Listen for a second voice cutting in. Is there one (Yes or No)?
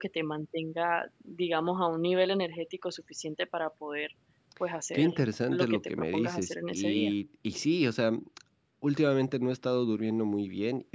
Yes